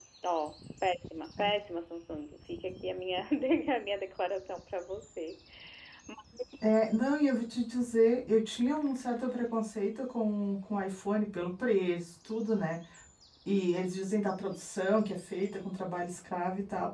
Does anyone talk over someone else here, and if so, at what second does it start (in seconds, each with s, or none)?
none